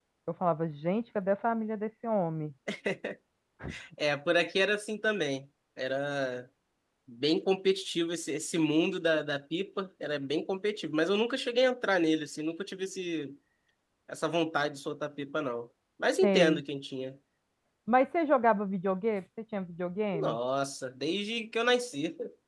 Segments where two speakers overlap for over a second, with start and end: none

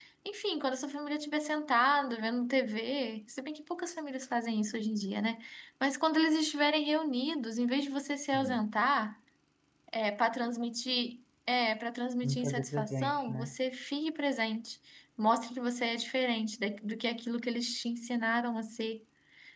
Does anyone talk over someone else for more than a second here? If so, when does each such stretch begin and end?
12.2-13.5

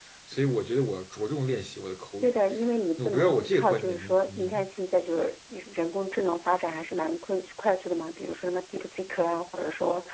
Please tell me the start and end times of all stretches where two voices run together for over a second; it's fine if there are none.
3.0-4.6

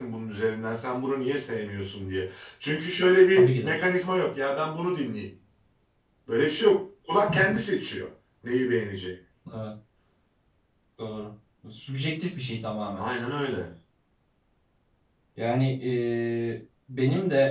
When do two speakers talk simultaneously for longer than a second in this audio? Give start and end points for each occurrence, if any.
none

